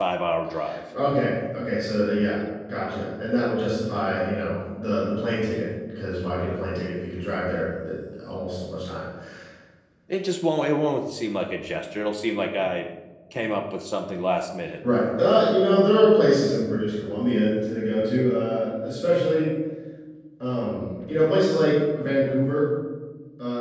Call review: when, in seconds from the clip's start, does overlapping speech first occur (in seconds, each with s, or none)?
none